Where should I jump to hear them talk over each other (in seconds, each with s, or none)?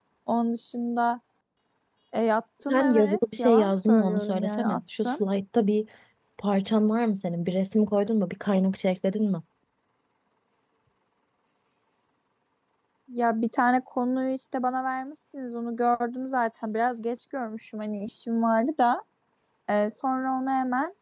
2.7 s